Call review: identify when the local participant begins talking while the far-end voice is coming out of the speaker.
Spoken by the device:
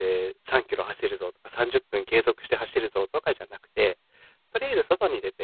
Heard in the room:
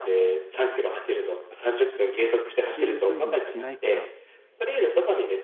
3 s

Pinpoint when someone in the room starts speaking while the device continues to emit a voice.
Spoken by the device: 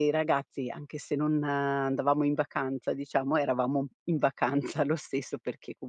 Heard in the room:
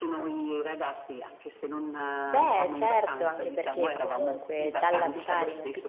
2 s

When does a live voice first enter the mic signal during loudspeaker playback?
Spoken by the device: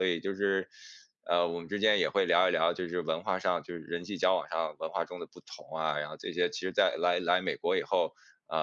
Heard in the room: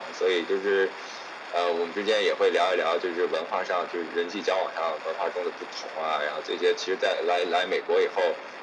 none

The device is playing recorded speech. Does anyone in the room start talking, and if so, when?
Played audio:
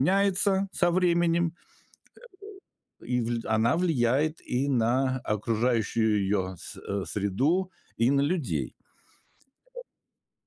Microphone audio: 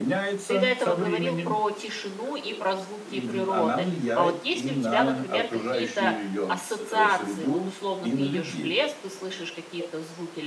0 s

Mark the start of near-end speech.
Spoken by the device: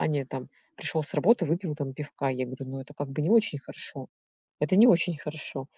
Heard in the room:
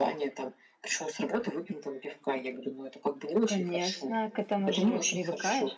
3 s

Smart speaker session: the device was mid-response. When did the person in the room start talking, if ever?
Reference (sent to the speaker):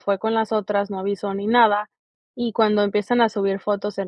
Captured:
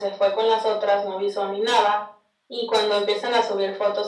none

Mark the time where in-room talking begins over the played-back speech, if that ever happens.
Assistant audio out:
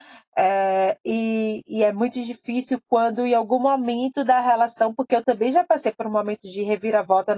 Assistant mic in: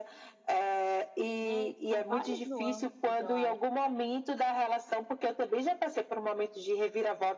1 s

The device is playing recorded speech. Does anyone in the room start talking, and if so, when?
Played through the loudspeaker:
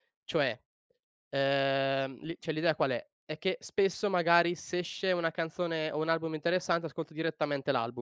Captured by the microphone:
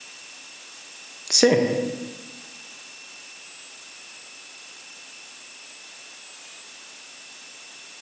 1 s

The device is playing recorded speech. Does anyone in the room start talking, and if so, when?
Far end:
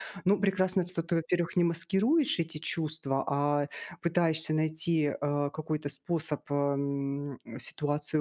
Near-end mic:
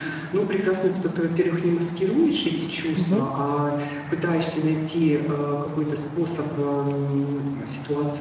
3 s

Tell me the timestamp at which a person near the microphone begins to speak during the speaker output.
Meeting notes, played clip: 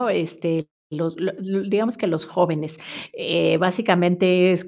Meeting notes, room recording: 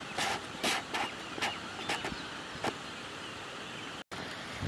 none

